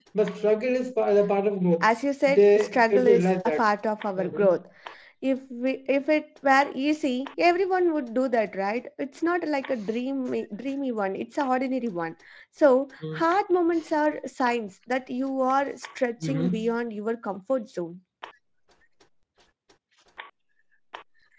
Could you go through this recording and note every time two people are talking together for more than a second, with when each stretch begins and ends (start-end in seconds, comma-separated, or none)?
2.3-3.6